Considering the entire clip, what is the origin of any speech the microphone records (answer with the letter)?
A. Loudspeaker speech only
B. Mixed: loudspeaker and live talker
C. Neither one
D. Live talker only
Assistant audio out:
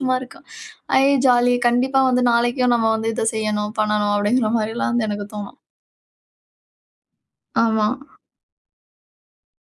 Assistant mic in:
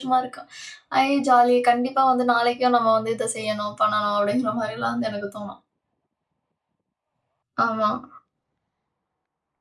A